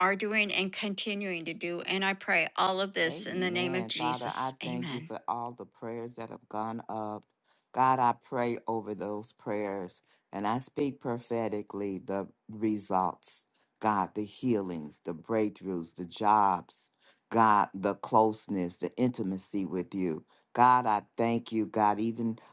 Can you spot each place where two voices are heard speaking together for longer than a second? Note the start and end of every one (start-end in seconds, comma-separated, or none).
3.1-5.0